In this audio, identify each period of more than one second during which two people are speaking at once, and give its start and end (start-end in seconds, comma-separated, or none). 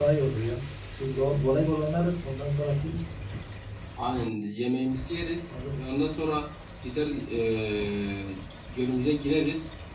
none